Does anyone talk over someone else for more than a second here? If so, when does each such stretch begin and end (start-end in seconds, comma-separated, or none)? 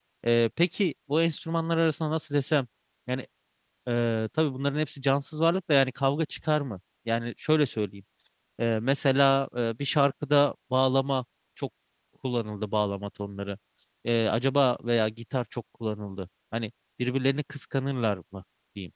none